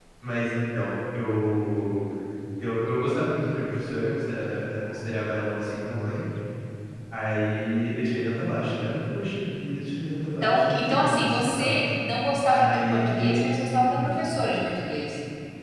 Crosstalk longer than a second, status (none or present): present